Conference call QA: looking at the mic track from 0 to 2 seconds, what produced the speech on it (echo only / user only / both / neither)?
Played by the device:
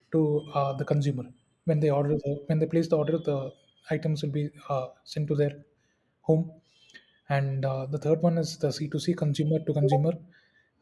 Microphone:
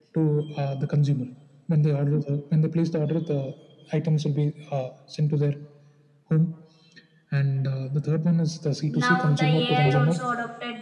echo only